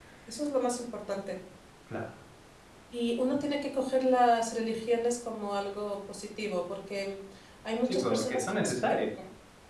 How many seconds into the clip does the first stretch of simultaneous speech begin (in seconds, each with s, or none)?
7.8 s